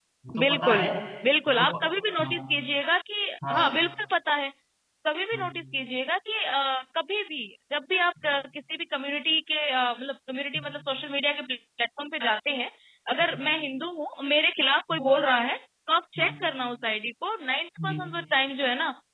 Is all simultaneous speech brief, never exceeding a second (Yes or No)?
Yes